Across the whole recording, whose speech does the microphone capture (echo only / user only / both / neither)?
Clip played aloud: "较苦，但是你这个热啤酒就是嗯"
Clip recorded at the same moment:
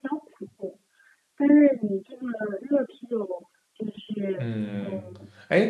both